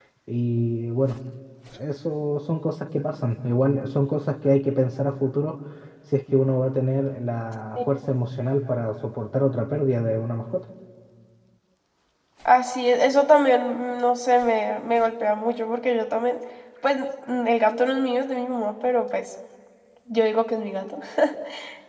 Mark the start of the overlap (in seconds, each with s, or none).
none